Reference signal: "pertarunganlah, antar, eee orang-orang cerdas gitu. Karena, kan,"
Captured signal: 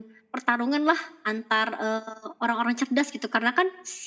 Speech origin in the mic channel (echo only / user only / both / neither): echo only